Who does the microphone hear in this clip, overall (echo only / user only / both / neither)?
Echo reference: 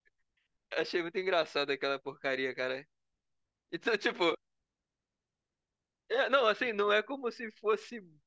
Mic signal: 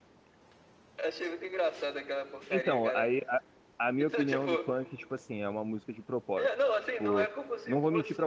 both